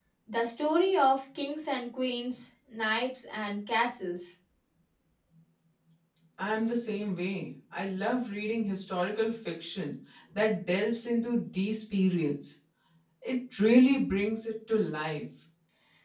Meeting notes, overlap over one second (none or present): none